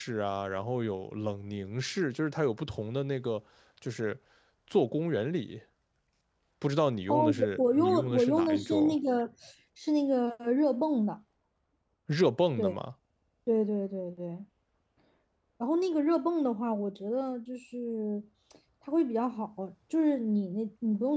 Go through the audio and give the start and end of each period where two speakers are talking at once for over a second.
7.1-8.9

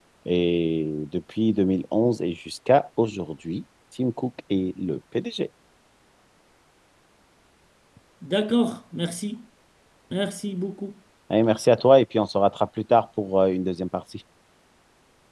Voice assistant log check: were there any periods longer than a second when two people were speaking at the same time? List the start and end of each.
none

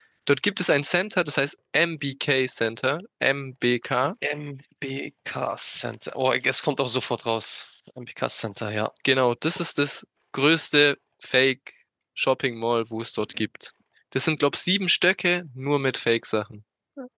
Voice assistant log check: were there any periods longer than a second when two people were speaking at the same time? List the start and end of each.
none

